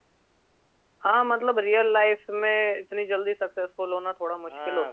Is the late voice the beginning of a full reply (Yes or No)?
Yes